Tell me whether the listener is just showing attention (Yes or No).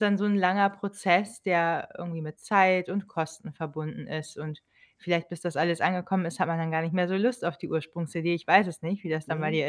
No